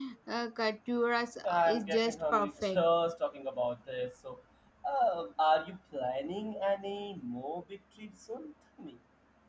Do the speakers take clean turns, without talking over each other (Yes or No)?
No